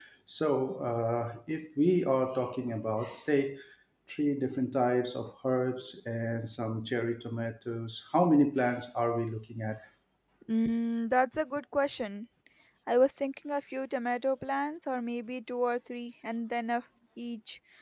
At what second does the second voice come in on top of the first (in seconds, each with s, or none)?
none